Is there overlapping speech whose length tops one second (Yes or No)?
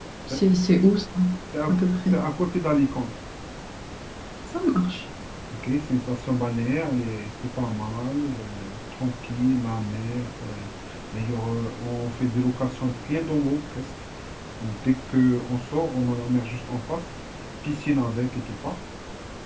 No